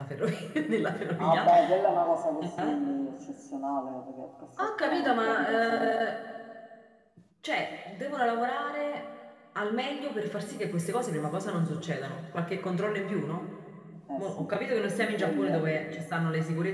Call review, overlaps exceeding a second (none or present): present